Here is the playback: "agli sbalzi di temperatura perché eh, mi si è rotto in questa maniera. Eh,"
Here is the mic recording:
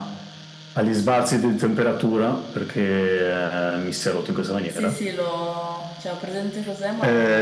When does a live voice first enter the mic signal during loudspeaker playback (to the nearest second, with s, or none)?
5 s